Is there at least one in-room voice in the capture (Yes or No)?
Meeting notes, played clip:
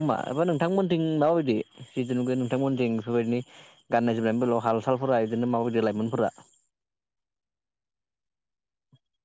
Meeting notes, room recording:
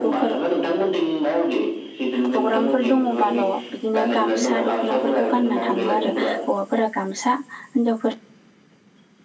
Yes